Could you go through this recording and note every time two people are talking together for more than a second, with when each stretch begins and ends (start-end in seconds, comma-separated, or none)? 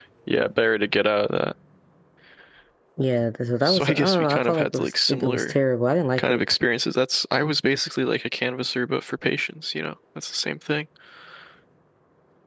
3.6-5.6